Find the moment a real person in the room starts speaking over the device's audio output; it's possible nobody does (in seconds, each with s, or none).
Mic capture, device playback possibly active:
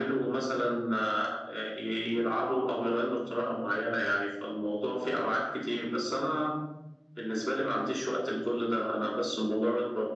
none